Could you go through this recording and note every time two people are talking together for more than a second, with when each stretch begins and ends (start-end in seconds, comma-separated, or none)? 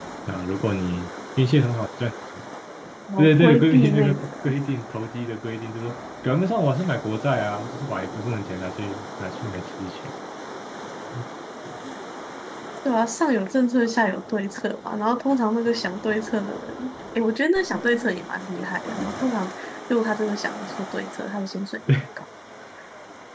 3.2-4.5